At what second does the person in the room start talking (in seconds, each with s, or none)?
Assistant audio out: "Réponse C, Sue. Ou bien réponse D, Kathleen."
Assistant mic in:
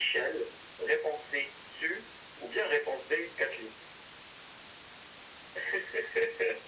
none